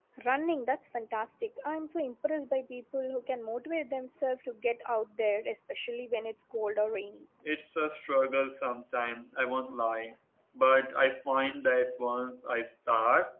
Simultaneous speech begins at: none

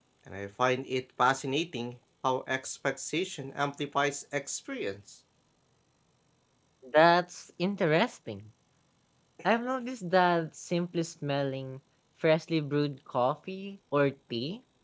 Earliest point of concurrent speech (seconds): none

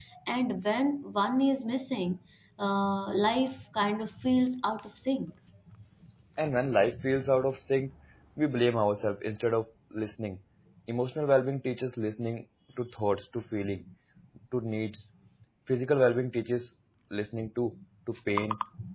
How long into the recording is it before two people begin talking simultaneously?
none

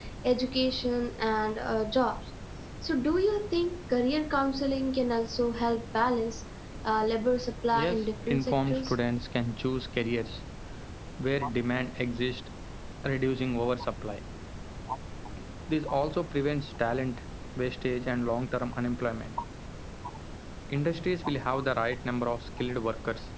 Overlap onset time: 7.7 s

